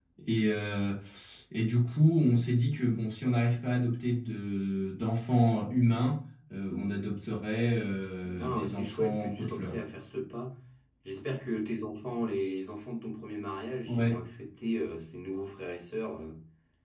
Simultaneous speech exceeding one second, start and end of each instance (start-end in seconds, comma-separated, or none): 8.4-9.8